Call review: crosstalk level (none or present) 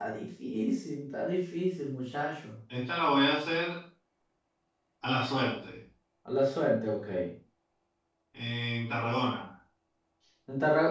none